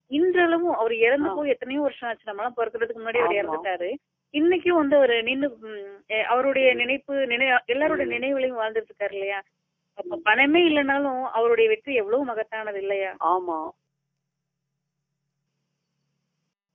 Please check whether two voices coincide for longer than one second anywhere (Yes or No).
No